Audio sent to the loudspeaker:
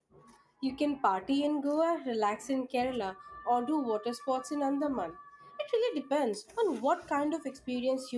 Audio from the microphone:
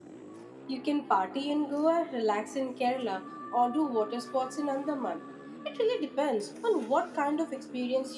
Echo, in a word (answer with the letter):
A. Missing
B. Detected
B